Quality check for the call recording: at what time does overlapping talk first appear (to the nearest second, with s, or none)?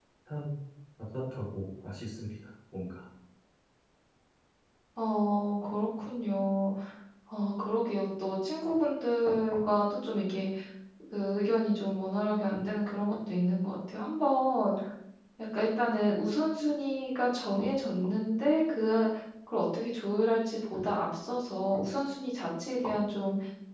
none